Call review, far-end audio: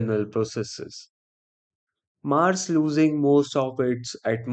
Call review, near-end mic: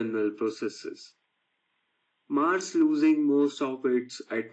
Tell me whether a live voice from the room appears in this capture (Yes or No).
No